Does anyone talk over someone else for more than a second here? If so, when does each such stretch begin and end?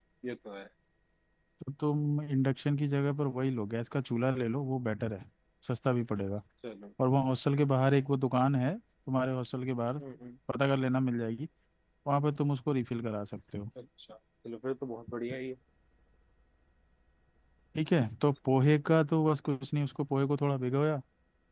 none

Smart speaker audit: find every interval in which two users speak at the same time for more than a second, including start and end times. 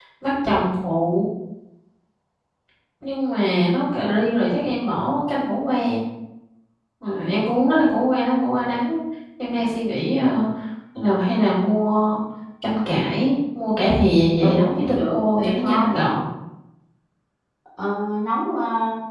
14.4-15.8

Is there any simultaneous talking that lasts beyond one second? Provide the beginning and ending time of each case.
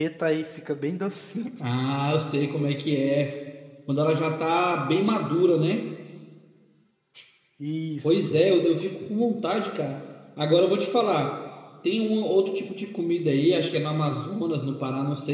none

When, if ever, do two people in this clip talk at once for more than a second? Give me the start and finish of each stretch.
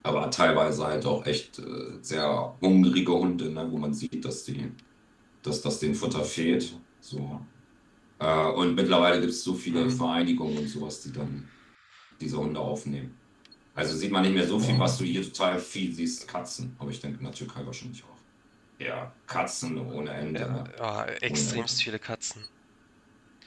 none

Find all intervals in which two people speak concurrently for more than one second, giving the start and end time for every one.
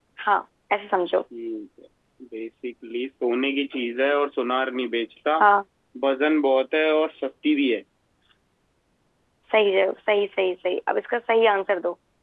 none

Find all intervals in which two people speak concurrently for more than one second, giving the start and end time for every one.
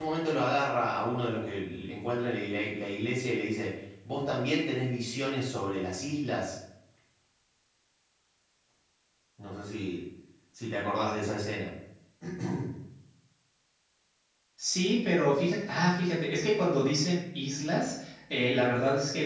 none

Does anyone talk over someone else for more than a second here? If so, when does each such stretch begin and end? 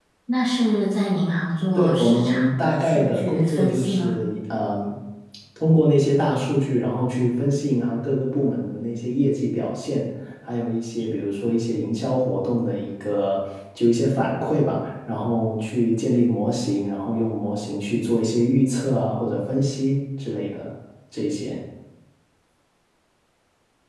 1.7-4.2

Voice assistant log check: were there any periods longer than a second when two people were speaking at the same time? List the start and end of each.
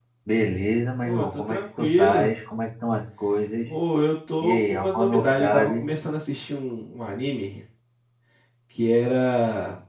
1.0-2.3, 4.4-5.8

